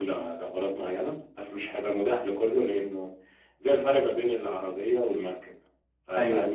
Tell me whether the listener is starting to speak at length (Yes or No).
No